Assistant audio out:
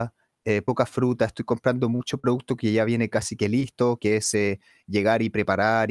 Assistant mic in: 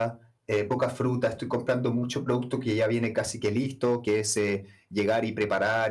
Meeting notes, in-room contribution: none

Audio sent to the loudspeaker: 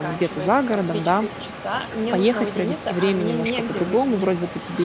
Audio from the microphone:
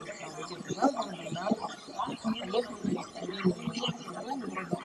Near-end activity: none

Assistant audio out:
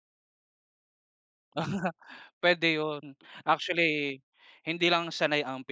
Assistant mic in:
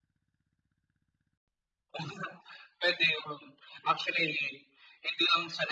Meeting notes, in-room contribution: none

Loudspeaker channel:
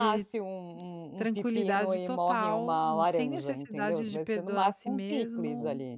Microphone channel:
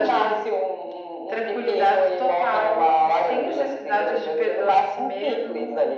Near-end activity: none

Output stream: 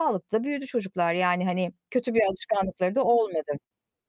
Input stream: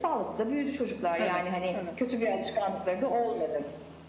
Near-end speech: present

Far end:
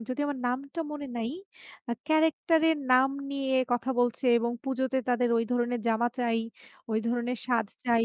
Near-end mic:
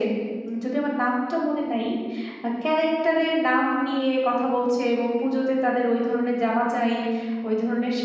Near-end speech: none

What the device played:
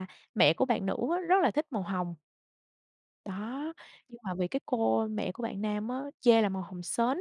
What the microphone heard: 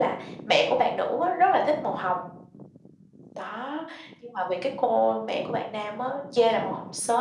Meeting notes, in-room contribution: none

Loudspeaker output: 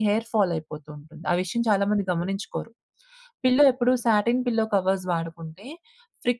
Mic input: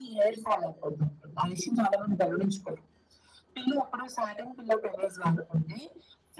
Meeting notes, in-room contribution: none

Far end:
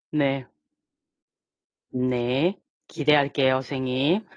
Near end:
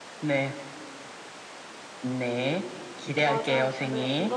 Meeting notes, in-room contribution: present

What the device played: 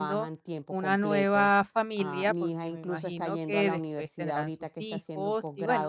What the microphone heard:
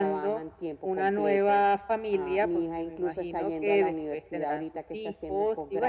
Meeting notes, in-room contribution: none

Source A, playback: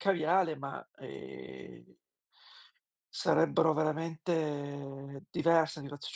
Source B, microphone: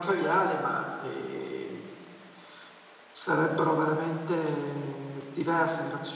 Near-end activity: none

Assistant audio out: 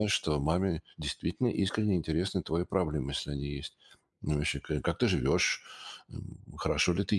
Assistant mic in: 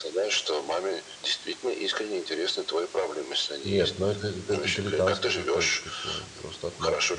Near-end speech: present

